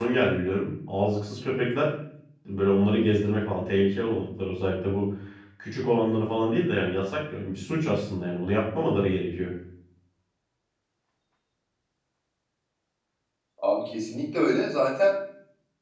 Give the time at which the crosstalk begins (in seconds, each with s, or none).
none